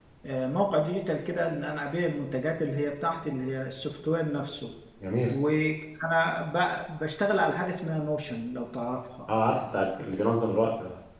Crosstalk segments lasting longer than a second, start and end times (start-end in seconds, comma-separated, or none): none